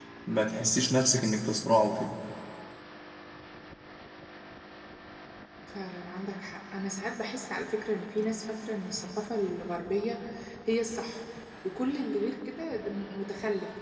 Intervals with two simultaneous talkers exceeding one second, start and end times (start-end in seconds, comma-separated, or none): none